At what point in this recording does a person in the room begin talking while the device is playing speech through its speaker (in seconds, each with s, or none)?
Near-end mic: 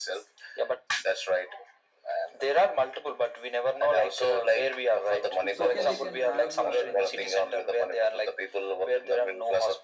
5.4 s